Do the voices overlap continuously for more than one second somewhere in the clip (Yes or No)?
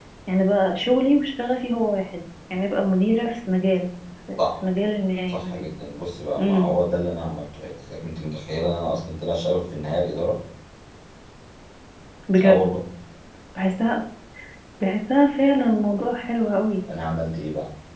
No